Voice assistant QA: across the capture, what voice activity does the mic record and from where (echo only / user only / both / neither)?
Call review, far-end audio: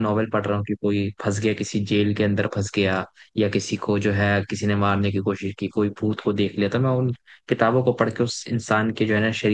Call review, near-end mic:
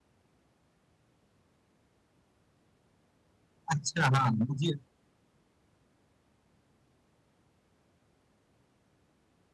user only